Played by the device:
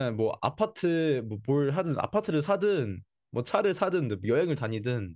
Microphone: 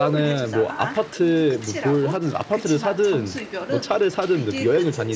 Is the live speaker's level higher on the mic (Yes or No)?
No